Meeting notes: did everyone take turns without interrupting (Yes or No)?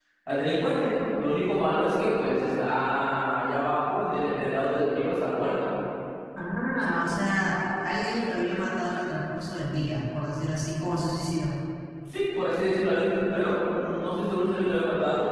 Yes